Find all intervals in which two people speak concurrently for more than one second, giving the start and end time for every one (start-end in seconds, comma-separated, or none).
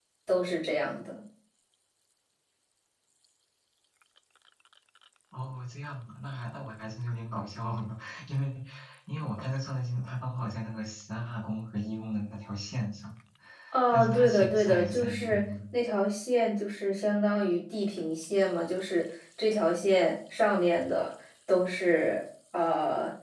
13.9-15.4